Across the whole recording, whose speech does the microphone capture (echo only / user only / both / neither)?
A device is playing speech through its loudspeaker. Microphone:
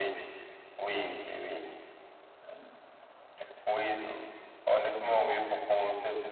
both